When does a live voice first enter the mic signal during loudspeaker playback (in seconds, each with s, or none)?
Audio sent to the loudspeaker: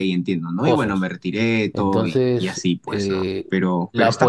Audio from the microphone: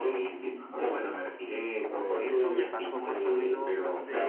2.1 s